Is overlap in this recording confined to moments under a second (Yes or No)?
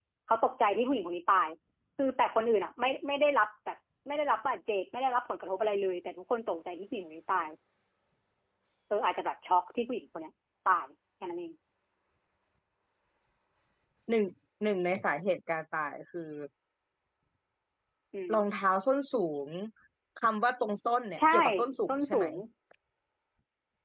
Yes